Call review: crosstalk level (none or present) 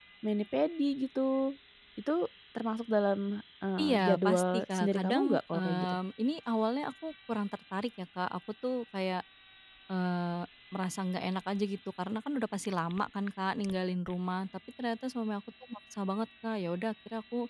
present